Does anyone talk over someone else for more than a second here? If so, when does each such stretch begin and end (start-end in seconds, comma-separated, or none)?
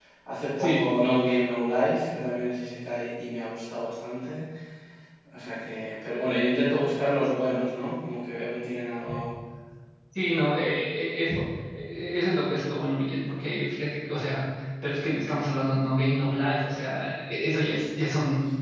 none